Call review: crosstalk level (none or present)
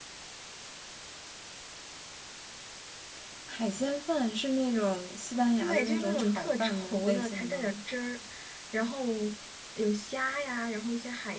present